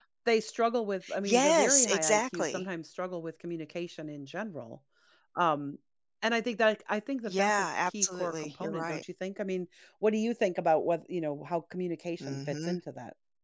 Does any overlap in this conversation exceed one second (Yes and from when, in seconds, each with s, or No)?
Yes, from 1.2 s